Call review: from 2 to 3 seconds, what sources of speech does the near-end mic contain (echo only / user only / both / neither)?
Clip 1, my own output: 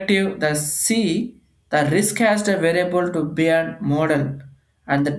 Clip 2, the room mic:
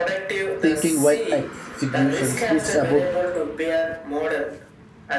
both